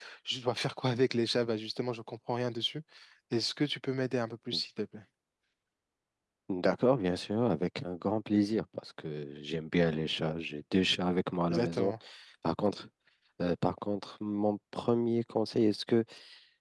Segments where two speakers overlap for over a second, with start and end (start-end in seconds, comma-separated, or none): none